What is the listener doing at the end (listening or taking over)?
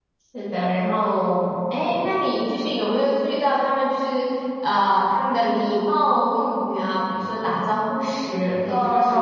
taking over